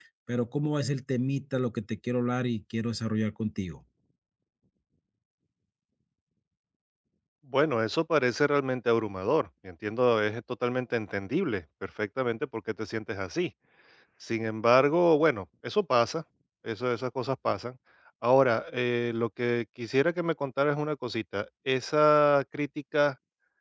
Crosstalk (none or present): none